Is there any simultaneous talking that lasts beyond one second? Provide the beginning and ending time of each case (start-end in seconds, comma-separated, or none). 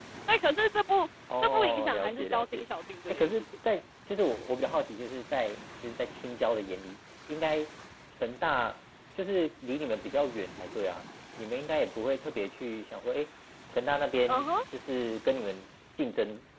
1.4-2.6